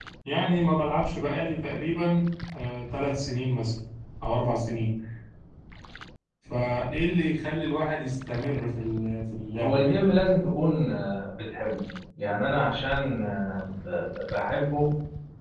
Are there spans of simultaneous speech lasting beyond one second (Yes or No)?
No